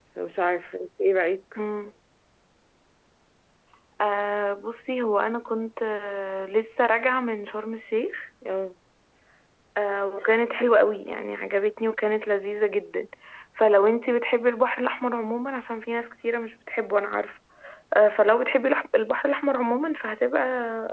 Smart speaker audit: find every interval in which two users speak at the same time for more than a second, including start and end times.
none

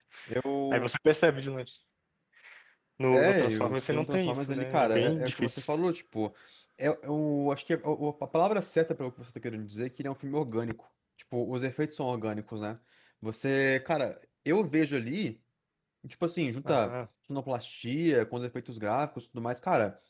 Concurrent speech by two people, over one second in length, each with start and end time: 3.1-5.6

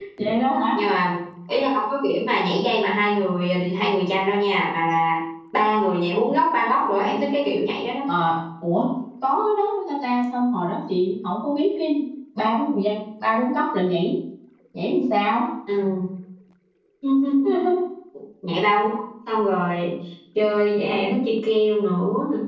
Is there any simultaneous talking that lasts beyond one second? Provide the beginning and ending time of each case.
none

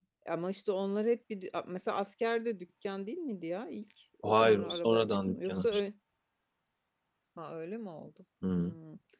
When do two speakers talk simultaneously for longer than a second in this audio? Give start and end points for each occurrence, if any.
4.2-5.8

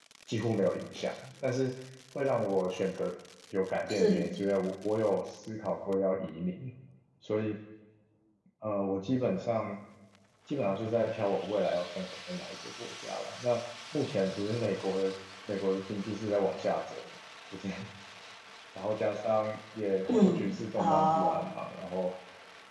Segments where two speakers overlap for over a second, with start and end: 20.1-21.4

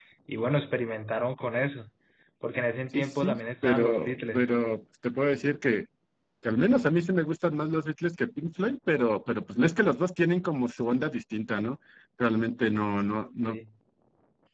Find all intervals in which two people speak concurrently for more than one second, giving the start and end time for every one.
2.9-4.5

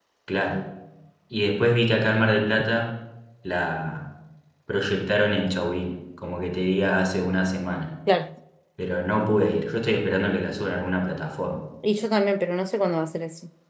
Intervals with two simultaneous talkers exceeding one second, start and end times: none

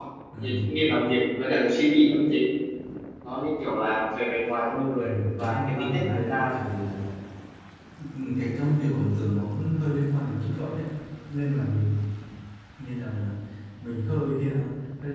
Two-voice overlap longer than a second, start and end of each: 5.0-6.5

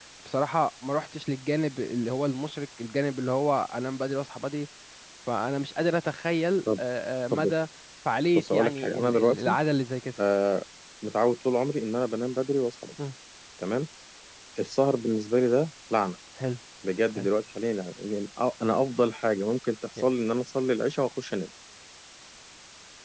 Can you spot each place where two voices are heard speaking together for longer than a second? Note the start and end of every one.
8.3-9.6

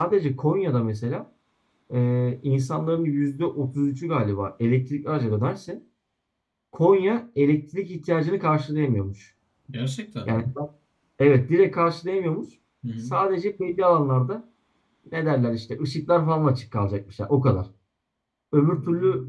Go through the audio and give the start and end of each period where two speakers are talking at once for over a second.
none

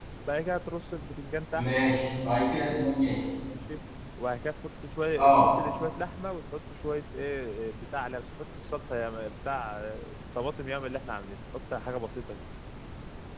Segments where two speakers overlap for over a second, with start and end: none

